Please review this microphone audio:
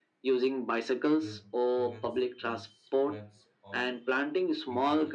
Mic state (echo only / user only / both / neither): both